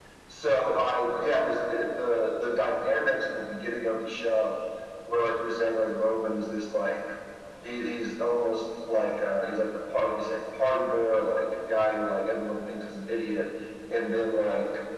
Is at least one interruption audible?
No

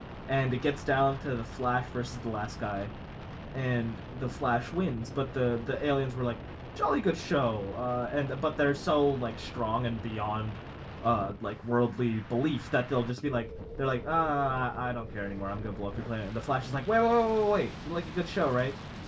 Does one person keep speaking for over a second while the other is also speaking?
No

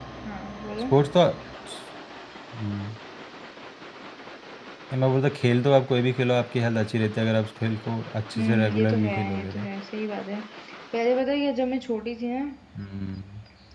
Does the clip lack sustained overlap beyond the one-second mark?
No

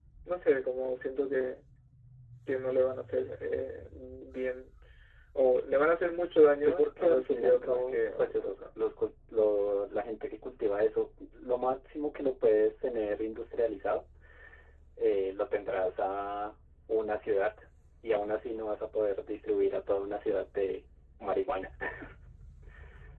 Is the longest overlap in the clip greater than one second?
Yes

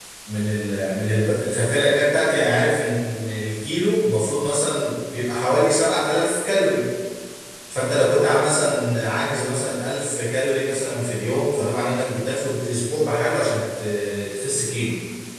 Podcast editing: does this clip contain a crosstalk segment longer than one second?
No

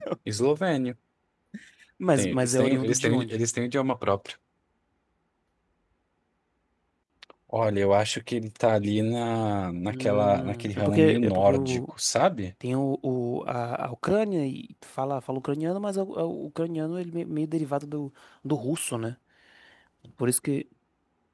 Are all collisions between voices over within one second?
No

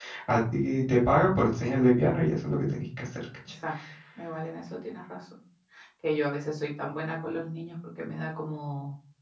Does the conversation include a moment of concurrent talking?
No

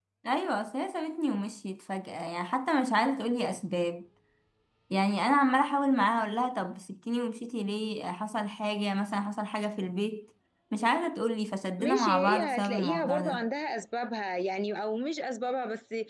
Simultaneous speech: Yes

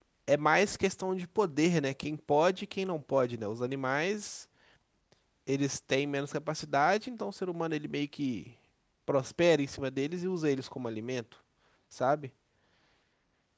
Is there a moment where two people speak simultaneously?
No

